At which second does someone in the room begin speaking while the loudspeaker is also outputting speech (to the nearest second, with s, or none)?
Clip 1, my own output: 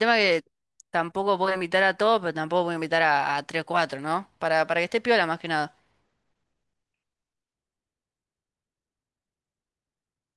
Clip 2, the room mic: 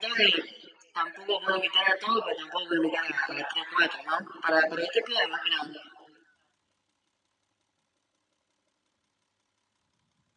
none